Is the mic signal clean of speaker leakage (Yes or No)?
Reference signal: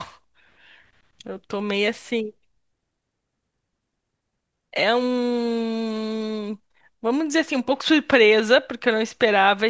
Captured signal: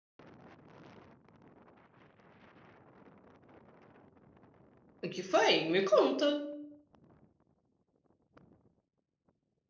Yes